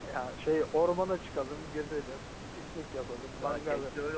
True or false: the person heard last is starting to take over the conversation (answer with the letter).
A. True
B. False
A